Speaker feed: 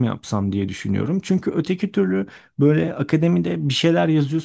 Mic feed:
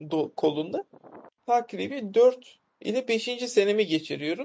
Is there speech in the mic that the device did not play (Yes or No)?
Yes